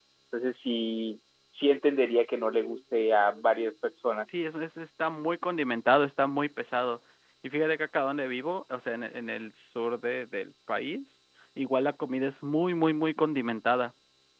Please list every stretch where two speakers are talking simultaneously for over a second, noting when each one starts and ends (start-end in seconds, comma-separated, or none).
none